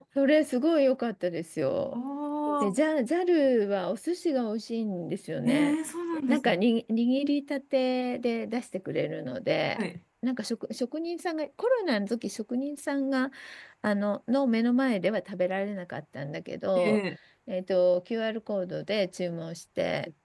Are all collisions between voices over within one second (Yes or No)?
Yes